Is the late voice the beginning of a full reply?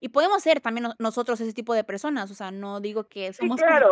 Yes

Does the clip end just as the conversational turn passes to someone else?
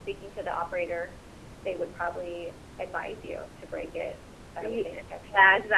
Yes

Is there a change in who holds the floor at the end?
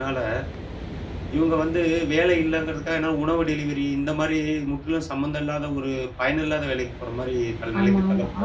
Yes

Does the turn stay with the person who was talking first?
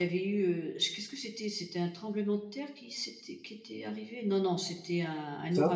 Yes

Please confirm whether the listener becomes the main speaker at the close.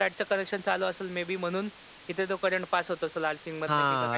Yes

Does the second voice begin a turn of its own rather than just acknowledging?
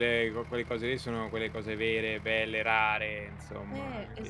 Yes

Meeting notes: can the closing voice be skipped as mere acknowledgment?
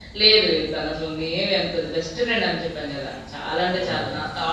Yes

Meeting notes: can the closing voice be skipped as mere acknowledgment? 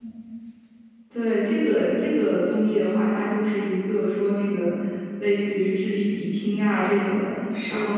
Yes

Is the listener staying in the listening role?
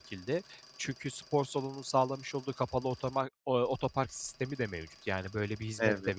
Yes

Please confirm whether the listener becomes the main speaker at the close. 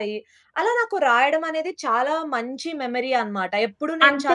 Yes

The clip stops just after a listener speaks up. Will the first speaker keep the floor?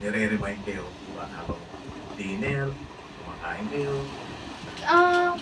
No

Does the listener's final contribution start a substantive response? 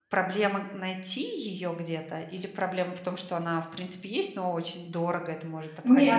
Yes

